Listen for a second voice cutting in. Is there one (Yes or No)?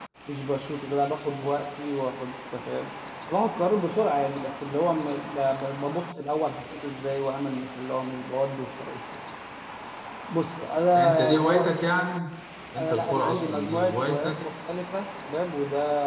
Yes